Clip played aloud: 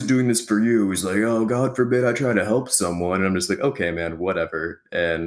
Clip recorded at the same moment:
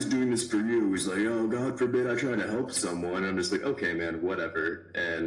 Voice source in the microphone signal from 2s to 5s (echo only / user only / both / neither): echo only